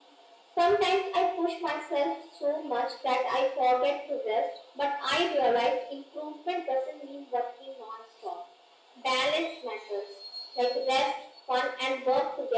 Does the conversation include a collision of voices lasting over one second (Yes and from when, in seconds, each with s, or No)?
No